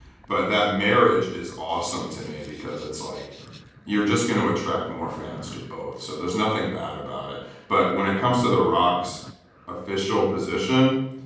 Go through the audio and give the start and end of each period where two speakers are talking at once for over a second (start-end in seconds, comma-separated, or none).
none